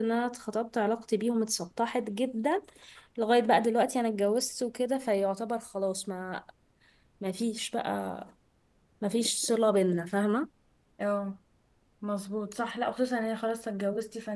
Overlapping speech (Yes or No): No